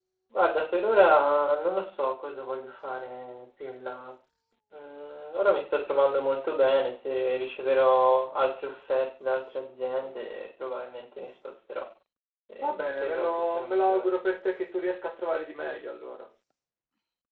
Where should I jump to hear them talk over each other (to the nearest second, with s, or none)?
13 s